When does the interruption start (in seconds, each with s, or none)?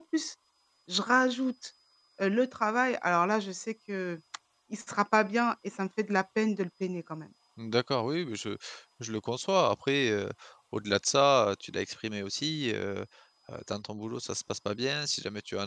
none